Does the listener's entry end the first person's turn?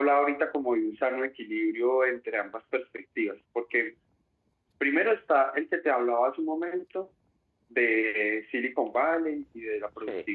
No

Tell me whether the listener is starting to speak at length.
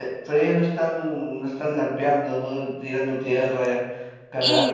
Yes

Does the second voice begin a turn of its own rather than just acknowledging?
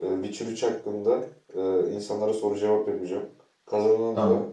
No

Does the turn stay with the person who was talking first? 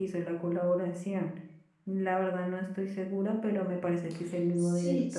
No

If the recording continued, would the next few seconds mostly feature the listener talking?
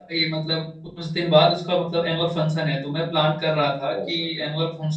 No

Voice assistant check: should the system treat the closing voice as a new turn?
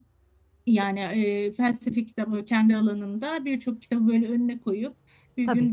No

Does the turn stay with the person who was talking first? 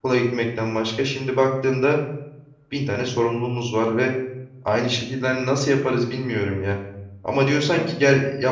Yes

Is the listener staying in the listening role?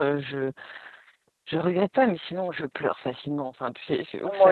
Yes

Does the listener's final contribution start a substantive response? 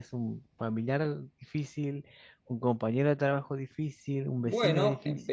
Yes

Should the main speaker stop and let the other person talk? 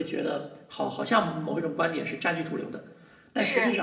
No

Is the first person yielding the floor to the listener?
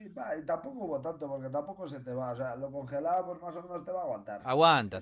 Yes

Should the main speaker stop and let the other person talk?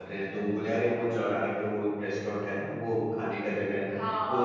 Yes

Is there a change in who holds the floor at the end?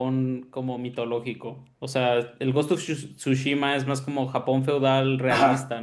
Yes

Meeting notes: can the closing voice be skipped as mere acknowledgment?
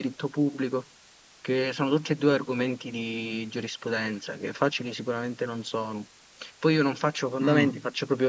Yes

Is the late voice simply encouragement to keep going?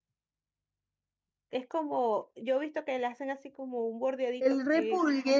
No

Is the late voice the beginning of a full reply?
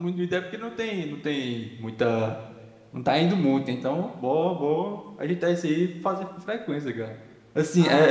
Yes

